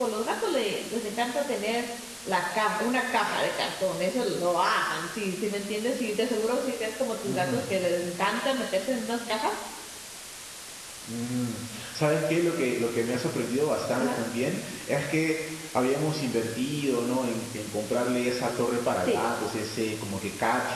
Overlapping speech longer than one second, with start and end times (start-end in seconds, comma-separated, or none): none